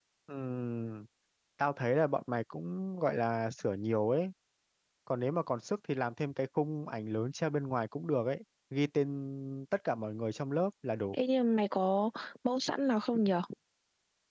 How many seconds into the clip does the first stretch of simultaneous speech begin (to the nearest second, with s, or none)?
none